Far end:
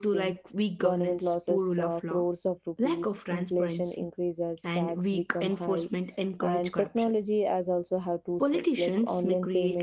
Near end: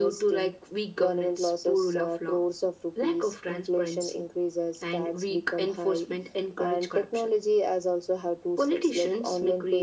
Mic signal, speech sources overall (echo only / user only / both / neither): echo only